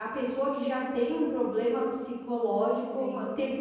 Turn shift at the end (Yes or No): Yes